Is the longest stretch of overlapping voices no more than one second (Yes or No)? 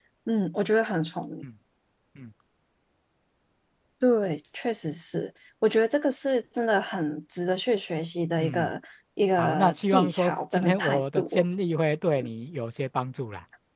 No